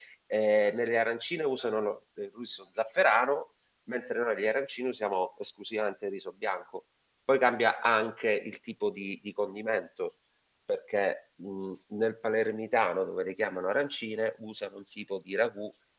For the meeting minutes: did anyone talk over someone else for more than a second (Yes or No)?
No